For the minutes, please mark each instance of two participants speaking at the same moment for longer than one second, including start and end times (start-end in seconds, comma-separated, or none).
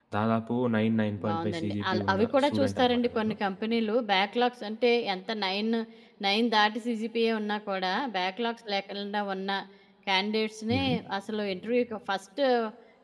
1.2-3.3